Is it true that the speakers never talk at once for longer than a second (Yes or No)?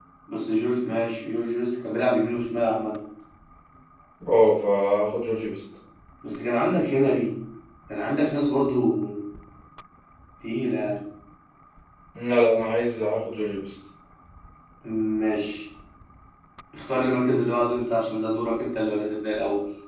Yes